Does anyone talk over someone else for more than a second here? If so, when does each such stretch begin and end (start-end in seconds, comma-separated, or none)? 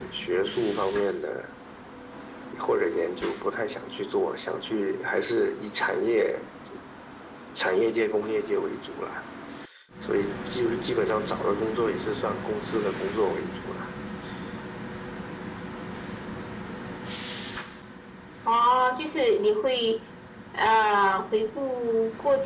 none